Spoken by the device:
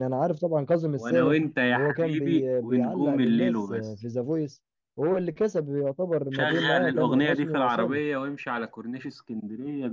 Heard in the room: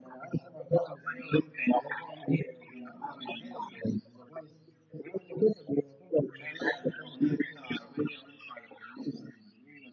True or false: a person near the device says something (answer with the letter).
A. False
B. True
A